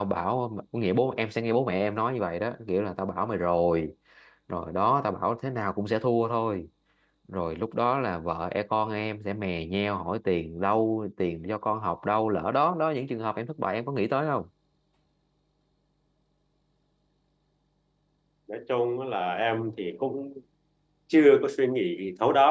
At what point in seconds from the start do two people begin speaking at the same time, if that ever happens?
none

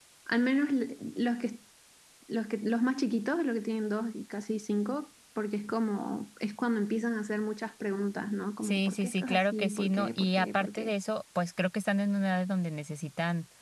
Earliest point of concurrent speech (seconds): 8.6 s

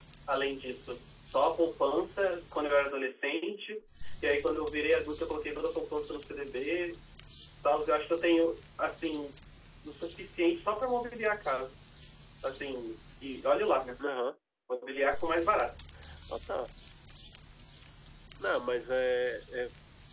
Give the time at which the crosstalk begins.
none

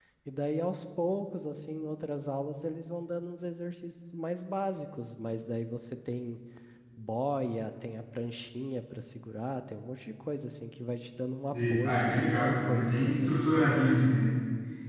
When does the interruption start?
11.3 s

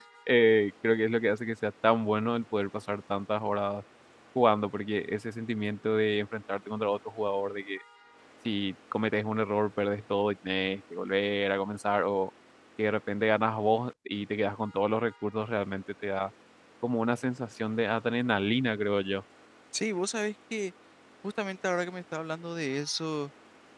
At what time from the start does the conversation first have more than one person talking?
none

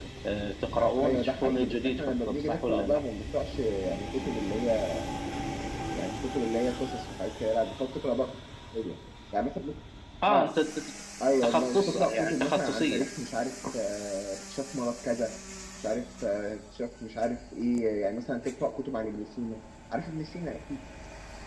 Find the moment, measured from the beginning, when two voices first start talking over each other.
0.8 s

